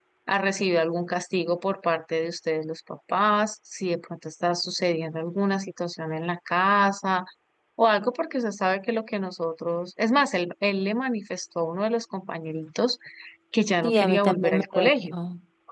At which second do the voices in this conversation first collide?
13.8 s

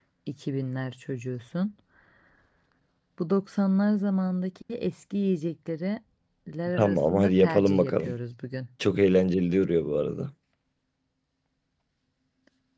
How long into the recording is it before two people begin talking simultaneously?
6.8 s

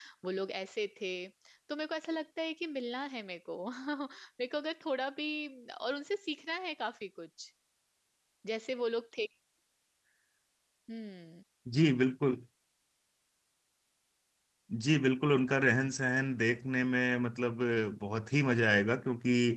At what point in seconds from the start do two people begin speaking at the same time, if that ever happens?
none

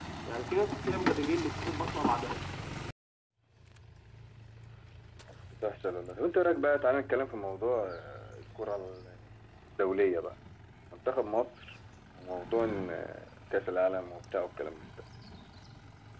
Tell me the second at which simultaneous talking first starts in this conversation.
none

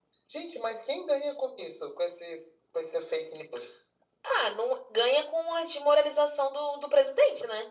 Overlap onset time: none

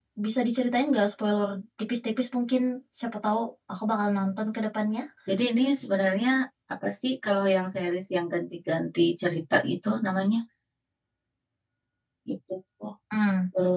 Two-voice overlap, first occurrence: none

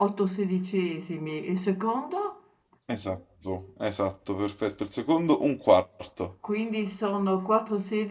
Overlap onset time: none

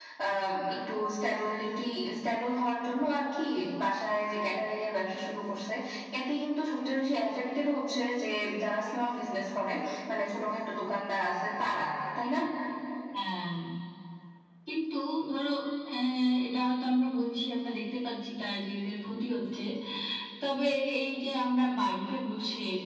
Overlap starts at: none

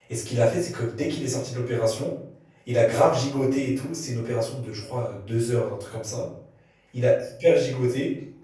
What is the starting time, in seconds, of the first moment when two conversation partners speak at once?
none

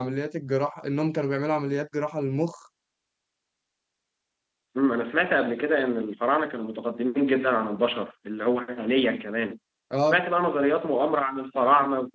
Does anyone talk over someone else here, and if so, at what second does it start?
none

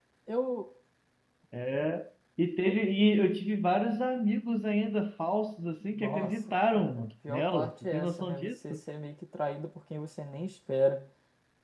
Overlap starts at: 6.0 s

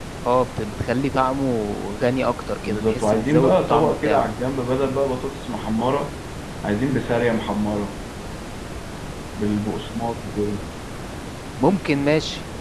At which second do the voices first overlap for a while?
2.6 s

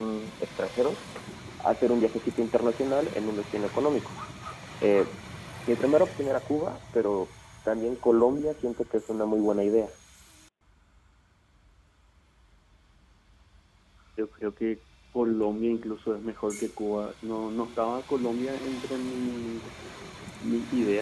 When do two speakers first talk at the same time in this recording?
none

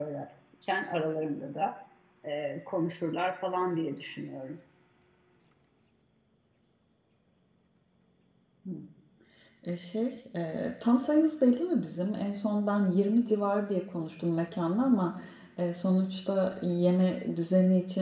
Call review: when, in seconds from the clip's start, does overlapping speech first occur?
none

